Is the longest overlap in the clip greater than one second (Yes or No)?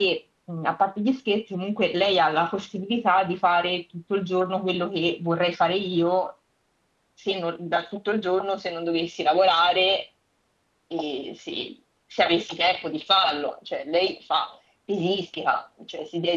No